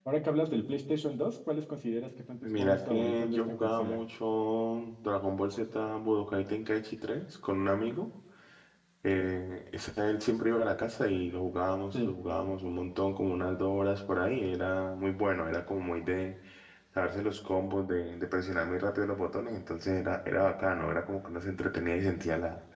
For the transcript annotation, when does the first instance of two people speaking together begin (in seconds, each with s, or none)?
2.4 s